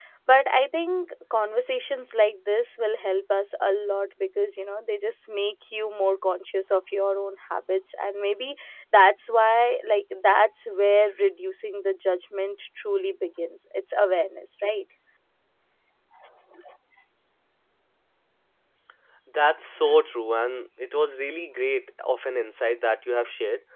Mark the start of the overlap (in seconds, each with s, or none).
none